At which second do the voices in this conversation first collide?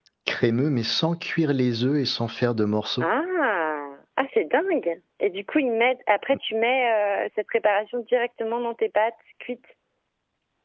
none

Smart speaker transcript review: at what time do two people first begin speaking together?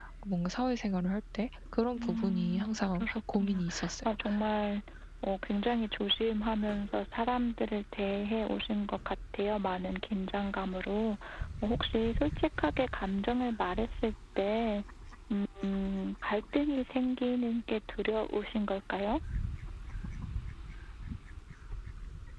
2.0 s

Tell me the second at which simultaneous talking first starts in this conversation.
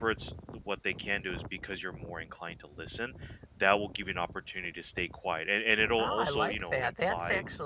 6.0 s

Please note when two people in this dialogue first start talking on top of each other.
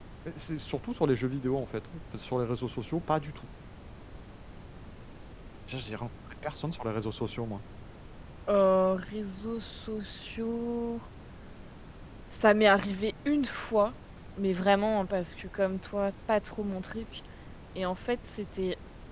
none

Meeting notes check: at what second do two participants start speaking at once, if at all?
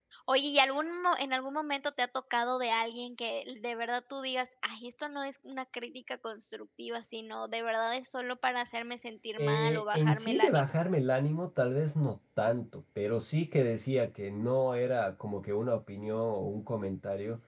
9.4 s

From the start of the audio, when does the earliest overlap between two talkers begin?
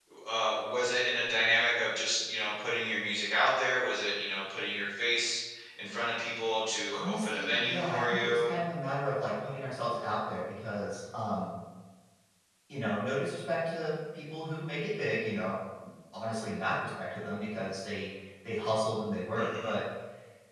6.9 s

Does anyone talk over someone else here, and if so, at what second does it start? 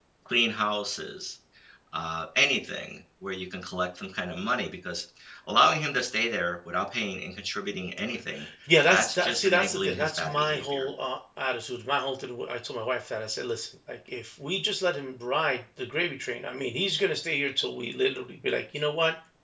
8.9 s

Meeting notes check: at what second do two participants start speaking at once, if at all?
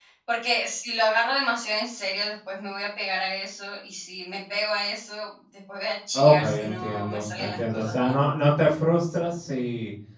6.1 s

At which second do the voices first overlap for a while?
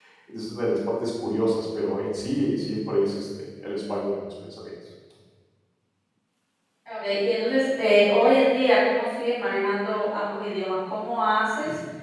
none

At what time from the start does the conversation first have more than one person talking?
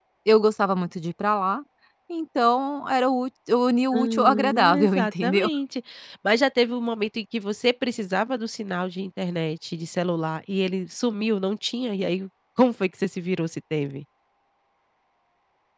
3.9 s

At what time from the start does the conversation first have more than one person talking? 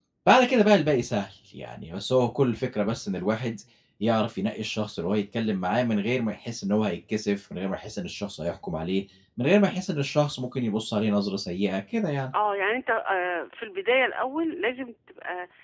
none

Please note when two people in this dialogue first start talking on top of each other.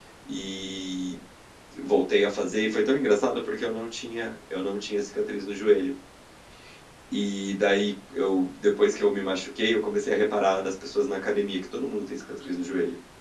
none

